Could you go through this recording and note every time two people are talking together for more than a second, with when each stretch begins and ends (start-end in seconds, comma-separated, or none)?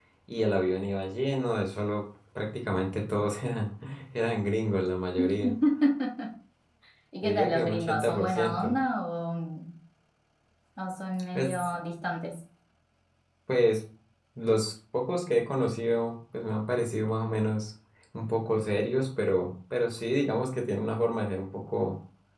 7.2-8.7